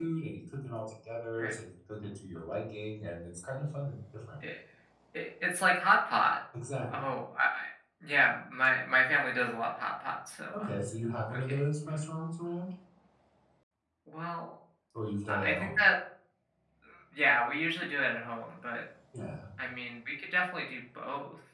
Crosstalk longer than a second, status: none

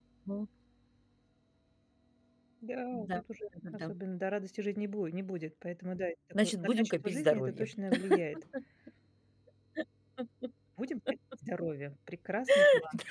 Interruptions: present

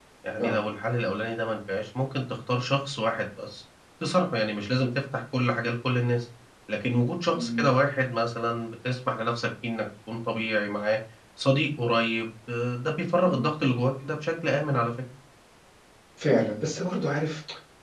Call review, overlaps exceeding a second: none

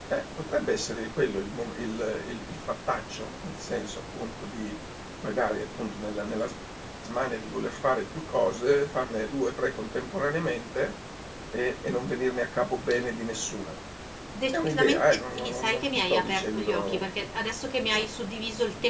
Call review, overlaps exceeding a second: present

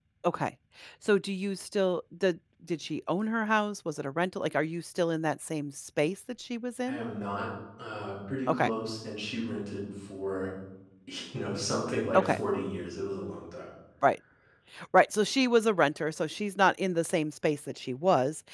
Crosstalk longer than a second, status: none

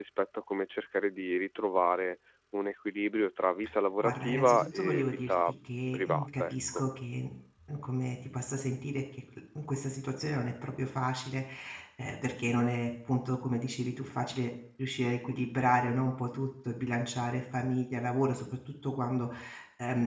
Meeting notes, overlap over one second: present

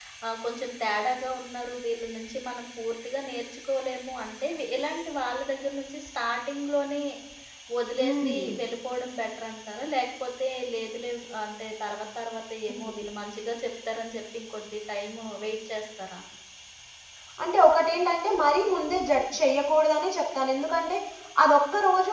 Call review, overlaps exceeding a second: none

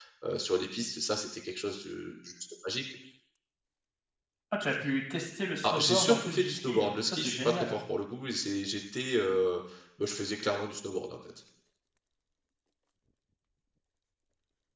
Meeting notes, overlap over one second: present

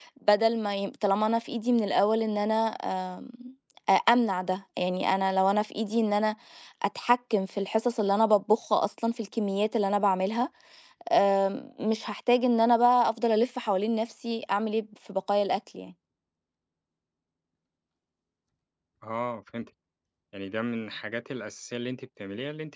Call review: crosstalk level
none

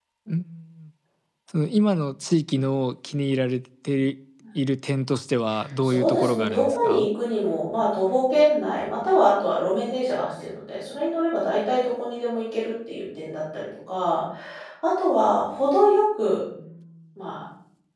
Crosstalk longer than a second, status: present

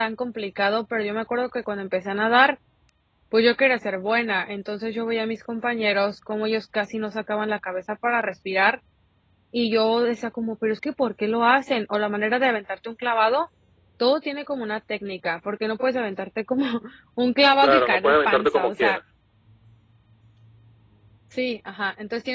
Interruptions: present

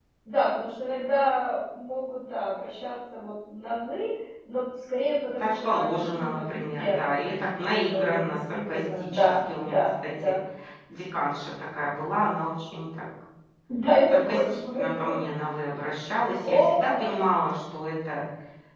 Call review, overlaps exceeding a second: present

